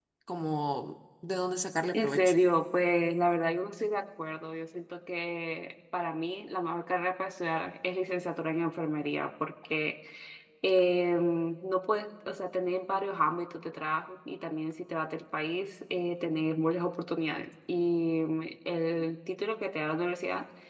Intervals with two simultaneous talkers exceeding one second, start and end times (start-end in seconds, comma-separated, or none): none